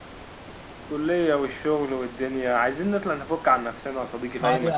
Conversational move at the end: taking over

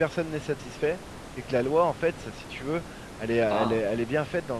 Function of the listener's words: listening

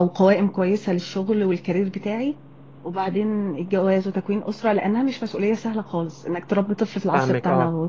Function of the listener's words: taking over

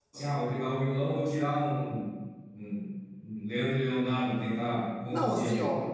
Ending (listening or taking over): taking over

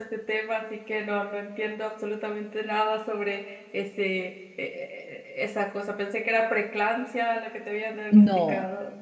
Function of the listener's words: taking over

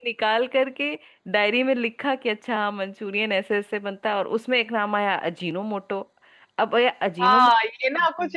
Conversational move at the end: taking over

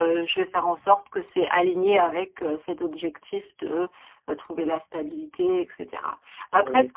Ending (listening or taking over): listening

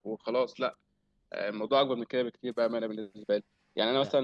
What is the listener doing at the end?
listening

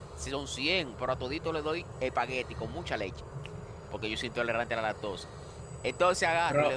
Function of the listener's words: taking over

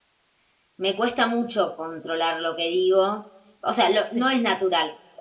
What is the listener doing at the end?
listening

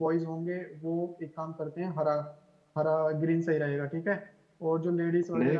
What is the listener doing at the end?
listening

